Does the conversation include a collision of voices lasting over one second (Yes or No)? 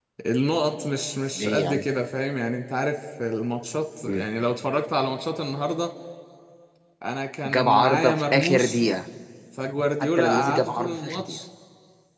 Yes